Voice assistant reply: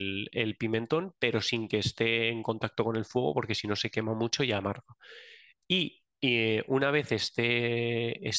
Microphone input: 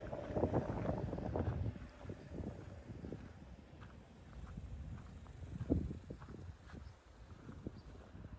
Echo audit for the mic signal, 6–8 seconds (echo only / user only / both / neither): neither